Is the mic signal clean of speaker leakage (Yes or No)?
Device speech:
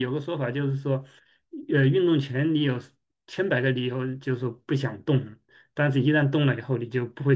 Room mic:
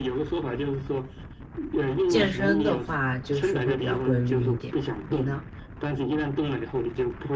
No